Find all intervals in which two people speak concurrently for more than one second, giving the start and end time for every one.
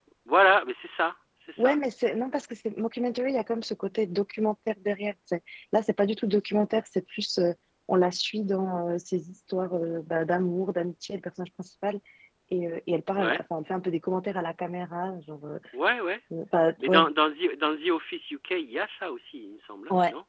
none

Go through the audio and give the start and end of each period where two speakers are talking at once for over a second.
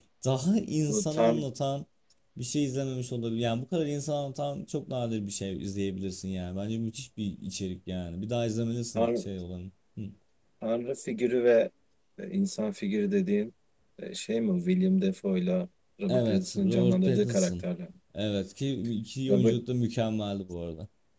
16.1-17.6

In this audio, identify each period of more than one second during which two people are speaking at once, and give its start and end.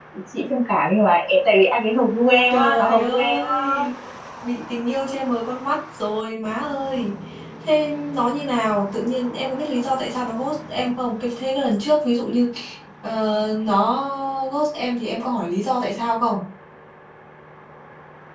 2.5-3.8

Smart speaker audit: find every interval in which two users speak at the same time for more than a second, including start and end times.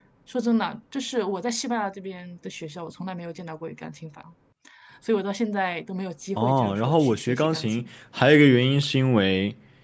6.3-7.8

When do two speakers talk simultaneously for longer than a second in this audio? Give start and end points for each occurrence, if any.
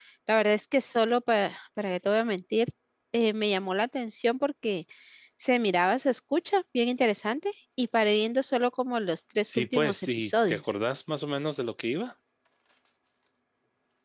9.4-10.7

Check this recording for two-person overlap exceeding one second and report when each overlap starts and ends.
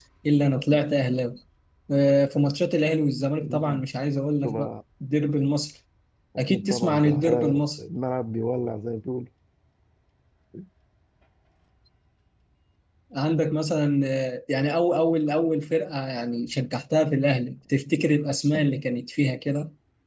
6.5-7.8

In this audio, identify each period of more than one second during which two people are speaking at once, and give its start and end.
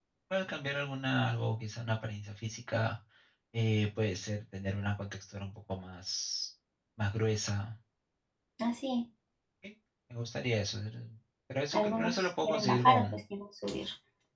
11.7-13.2

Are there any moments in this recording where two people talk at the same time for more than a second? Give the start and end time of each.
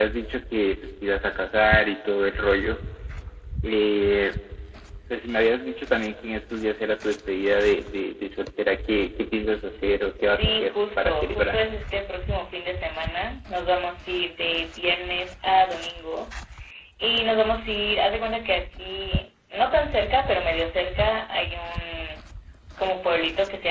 10.3-11.6

